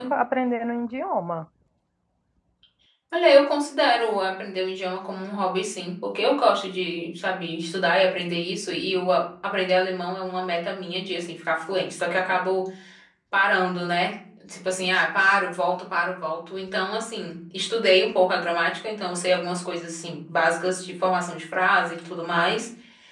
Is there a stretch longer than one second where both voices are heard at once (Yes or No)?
No